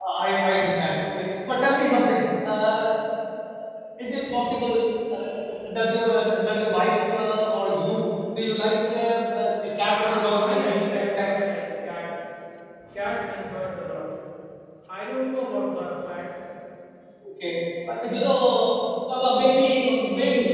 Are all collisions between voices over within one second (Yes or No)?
No